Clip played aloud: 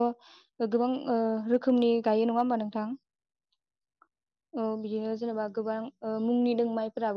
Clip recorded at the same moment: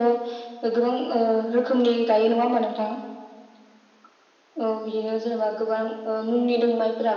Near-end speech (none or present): none